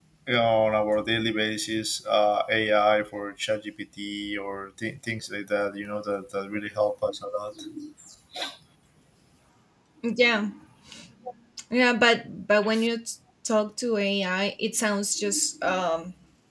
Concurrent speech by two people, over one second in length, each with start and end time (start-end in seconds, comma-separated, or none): none